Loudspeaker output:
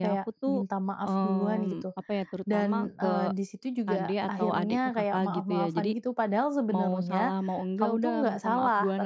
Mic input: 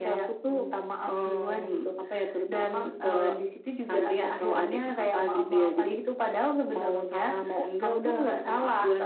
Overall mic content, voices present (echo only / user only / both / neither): echo only